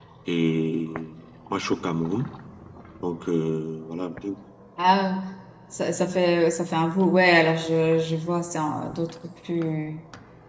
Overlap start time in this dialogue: none

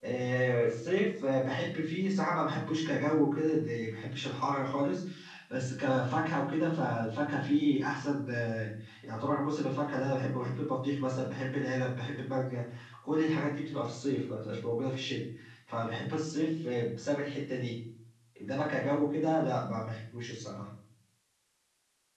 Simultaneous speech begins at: none

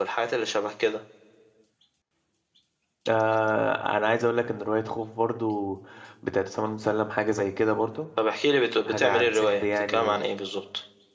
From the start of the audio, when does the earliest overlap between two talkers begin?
8.8 s

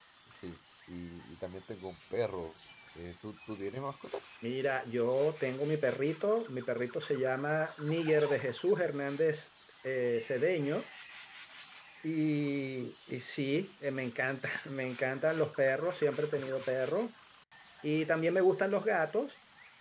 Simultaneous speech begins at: none

